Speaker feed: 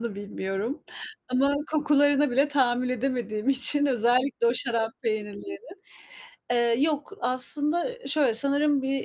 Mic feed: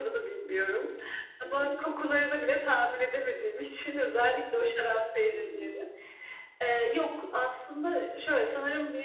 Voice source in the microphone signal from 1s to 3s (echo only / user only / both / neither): echo only